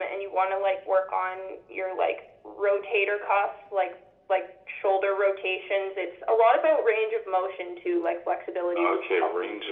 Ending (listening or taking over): taking over